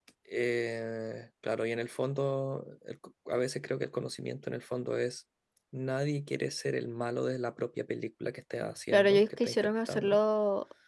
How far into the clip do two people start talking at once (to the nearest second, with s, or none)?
9 s